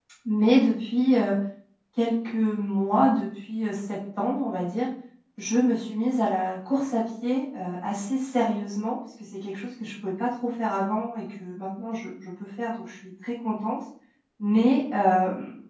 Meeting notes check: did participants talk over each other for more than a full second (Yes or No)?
No